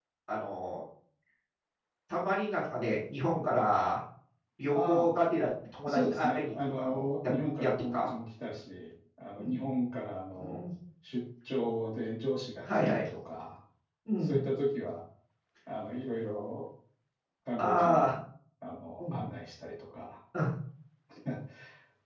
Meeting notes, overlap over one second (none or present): present